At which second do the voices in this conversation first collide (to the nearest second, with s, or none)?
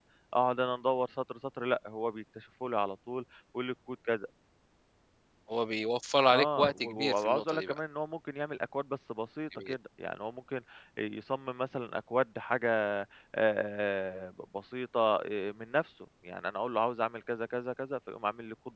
6 s